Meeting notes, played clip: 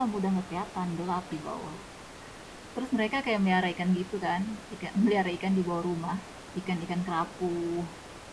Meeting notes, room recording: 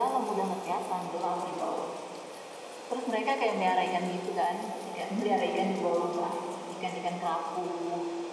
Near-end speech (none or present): none